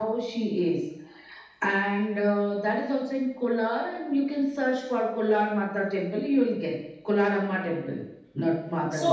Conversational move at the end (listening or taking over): taking over